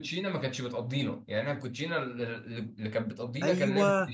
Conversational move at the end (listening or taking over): taking over